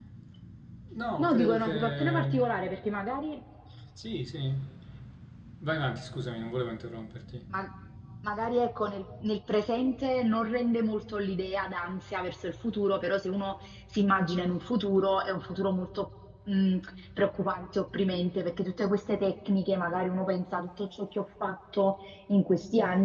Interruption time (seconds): 1.2 s

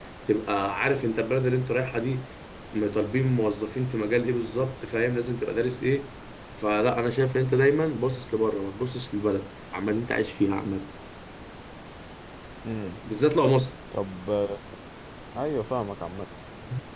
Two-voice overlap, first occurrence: none

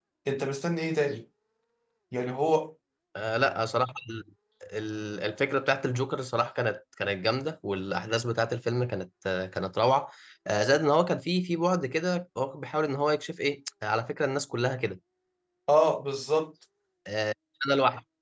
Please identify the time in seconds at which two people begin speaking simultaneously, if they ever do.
none

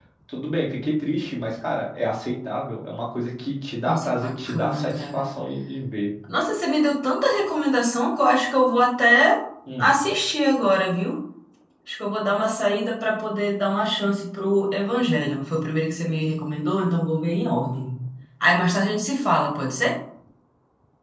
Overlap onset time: 3.9 s

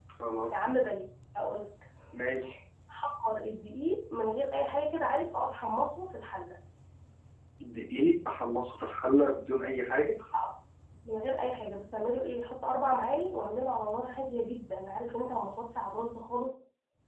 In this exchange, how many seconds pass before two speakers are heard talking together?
none

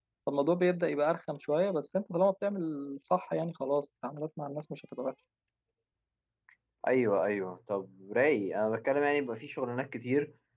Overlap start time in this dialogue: none

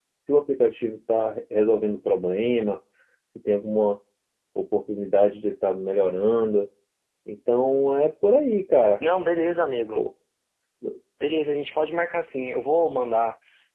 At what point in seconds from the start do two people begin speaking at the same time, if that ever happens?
none

